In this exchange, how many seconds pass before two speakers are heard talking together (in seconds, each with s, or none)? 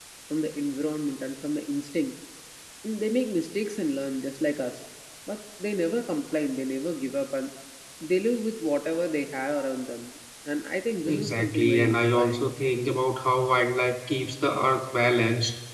11.0 s